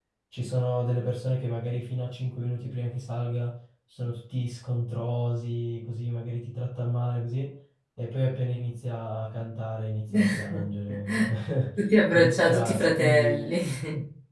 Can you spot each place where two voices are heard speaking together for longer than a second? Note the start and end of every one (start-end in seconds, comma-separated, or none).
12.1-13.5